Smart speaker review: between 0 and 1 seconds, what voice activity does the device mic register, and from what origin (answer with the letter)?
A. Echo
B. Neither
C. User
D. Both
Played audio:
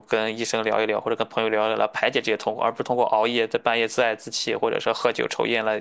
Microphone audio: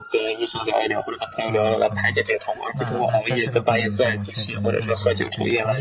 A